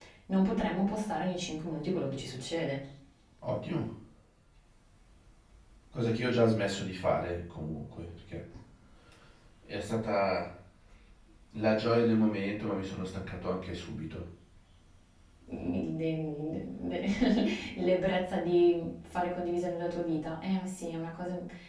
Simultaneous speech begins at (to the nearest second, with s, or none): none